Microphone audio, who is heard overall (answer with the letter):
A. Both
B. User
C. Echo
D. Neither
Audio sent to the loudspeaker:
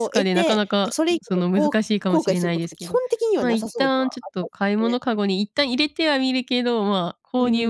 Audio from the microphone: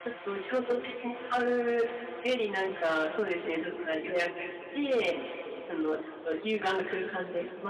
B